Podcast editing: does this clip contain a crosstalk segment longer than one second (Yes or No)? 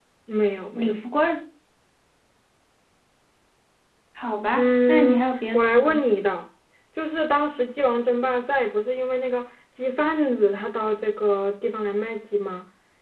Yes